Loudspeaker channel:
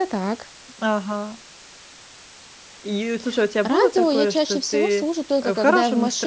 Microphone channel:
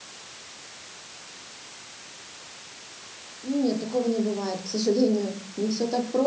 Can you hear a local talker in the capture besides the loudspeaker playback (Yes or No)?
Yes